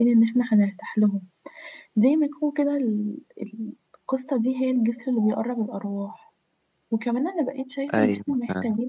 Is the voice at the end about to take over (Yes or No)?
No